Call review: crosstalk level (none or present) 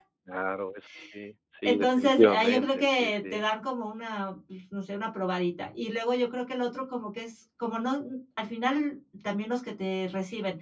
present